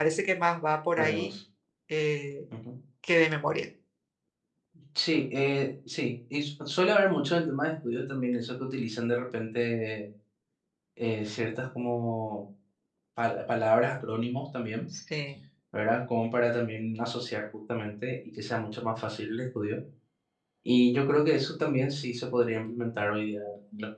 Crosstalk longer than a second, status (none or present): none